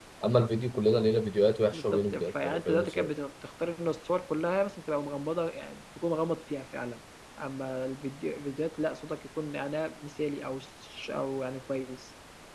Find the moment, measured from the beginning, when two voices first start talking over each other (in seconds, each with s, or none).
1.7 s